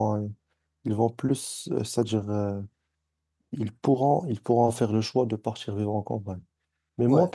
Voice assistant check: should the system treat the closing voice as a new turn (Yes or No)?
No